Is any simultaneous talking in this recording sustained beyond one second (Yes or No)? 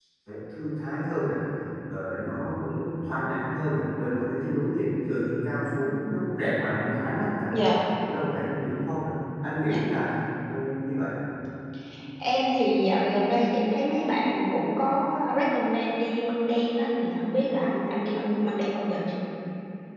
No